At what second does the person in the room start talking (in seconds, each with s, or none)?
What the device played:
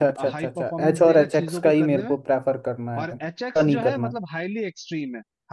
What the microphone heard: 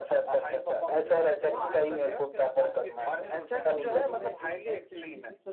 1.4 s